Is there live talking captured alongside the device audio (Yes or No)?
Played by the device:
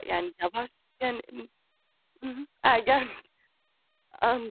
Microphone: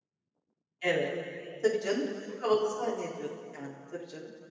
Yes